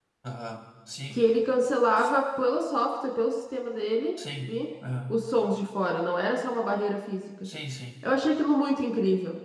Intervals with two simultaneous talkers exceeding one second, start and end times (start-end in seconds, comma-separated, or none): none